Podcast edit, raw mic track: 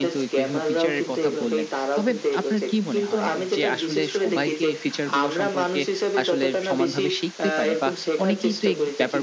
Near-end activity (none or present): present